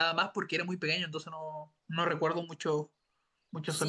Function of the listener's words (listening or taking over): taking over